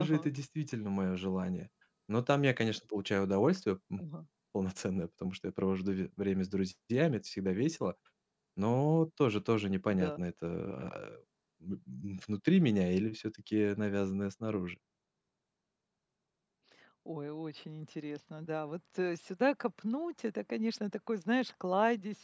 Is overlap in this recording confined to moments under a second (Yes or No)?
Yes